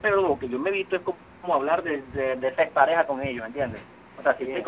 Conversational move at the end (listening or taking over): listening